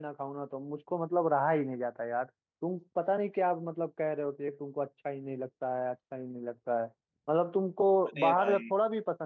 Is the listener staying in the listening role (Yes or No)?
Yes